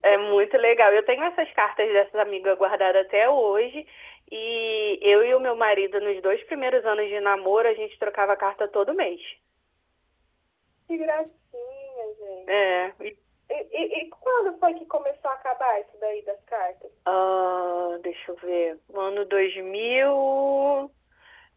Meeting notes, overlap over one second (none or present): none